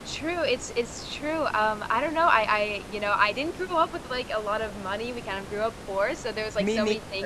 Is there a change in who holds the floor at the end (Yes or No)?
No